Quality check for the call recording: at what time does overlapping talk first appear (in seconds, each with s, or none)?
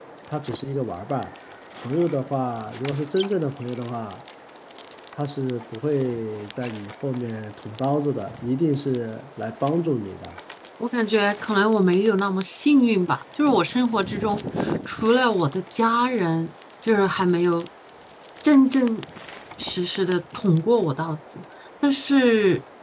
none